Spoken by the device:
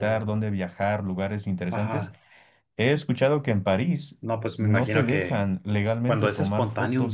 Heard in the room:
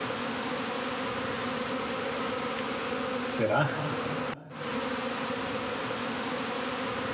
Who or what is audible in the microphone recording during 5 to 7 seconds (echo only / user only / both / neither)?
neither